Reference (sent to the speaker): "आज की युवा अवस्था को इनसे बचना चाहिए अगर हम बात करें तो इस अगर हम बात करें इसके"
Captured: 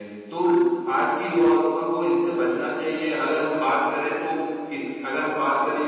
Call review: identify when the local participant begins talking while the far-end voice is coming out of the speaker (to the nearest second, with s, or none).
none